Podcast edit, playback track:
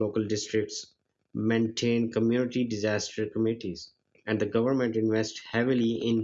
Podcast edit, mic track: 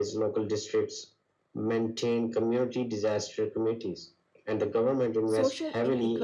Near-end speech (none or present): present